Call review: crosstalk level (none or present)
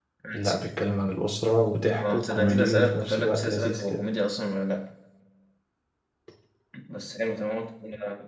present